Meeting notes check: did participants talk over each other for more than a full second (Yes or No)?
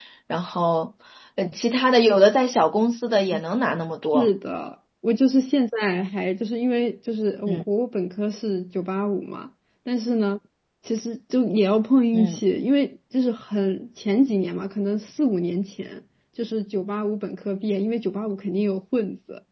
No